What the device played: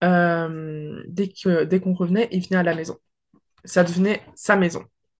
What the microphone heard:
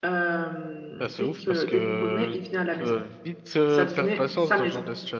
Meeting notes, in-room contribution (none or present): present